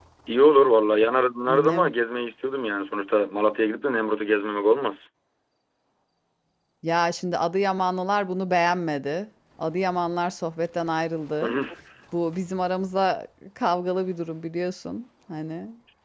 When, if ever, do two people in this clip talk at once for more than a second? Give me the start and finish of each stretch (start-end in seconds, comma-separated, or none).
none